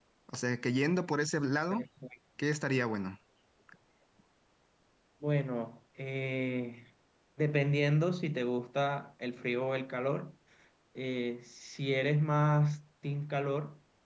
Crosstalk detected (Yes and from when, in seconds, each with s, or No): No